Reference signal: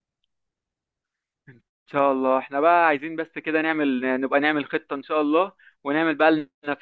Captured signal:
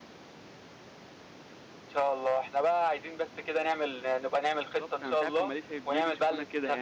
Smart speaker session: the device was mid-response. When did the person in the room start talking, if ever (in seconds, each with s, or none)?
4.6 s